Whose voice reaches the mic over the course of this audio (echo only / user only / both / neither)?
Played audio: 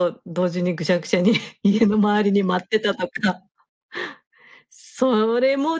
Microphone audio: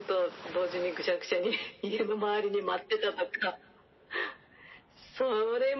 echo only